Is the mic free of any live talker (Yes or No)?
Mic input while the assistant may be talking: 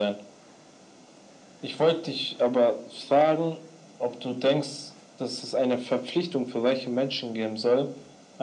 Yes